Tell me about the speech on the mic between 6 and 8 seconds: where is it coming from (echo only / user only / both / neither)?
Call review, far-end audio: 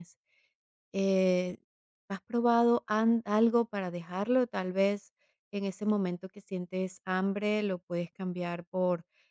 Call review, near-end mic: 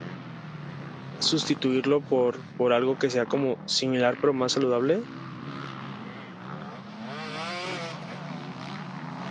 neither